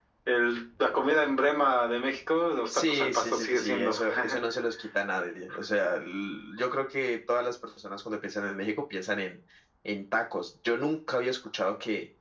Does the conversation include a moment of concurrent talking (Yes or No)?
Yes